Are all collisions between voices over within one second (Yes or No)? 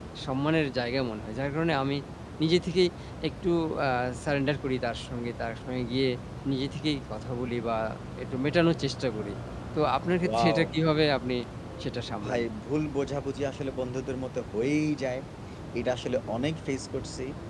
Yes